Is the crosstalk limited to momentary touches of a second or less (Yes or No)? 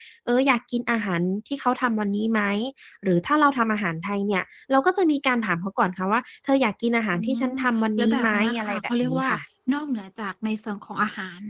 No